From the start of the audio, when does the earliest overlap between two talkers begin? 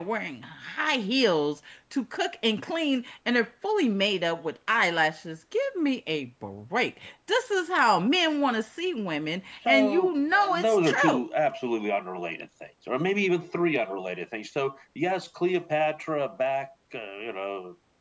9.5 s

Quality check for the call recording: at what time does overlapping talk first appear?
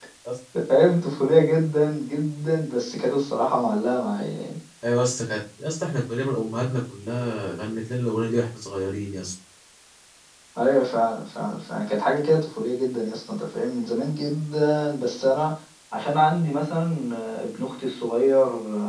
none

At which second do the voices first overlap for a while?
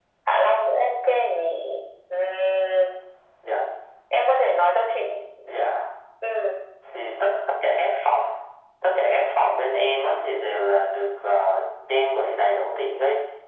none

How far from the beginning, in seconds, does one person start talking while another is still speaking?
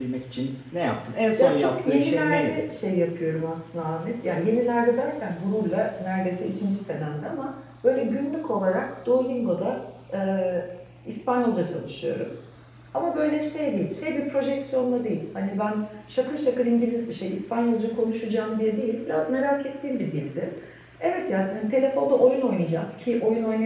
1.4 s

